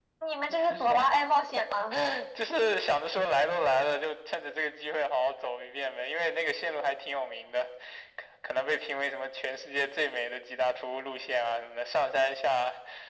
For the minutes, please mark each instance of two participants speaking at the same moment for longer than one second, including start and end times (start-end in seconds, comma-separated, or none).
none